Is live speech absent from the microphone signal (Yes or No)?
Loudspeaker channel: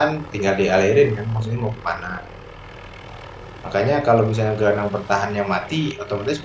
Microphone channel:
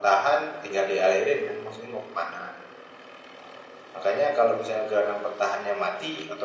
Yes